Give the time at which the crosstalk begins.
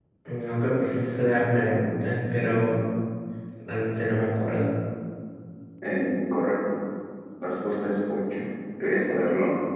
none

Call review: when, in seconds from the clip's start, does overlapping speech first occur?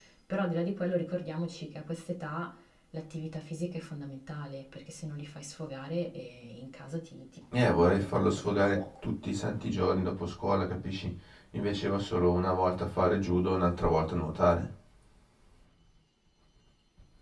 7.5 s

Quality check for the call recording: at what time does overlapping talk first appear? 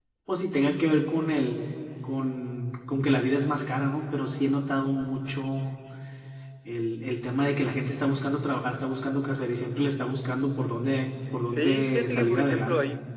11.5 s

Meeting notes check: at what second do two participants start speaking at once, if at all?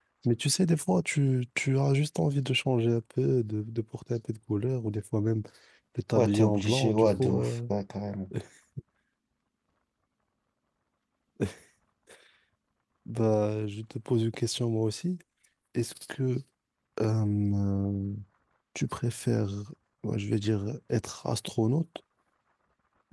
6.2 s

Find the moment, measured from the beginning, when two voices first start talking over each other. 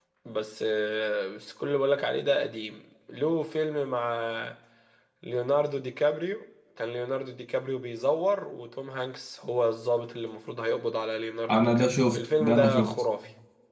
11.4 s

